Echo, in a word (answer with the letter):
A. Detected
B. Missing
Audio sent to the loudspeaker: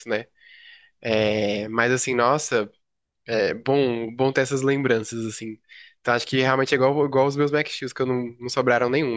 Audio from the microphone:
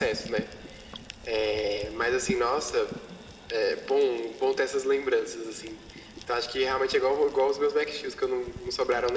A